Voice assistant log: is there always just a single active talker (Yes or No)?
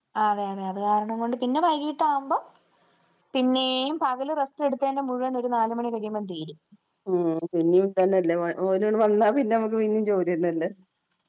Yes